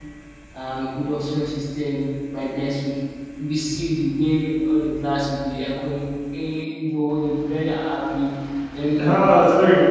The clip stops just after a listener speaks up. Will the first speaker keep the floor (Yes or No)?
No